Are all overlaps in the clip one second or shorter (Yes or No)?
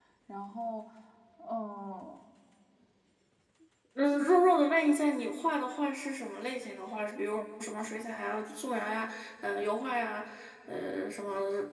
Yes